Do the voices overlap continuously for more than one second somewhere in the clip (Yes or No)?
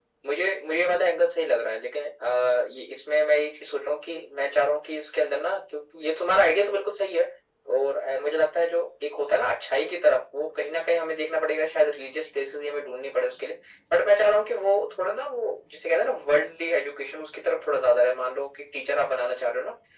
No